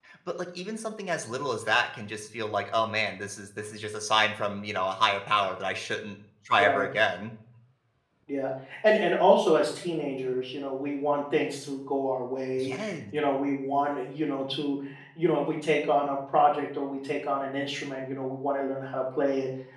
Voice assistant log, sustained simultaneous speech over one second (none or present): none